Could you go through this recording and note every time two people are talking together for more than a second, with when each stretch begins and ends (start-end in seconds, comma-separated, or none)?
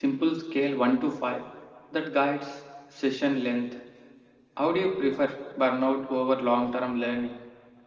none